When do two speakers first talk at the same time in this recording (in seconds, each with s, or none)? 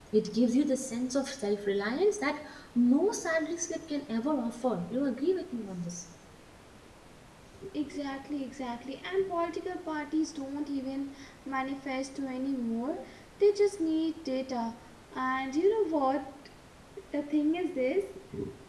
none